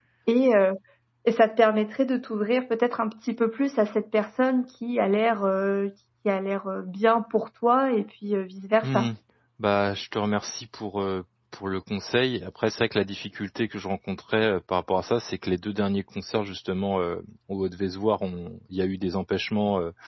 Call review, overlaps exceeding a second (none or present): none